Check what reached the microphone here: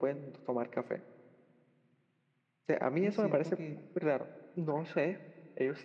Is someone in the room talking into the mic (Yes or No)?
Yes